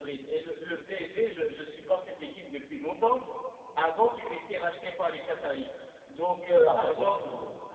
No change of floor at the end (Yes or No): Yes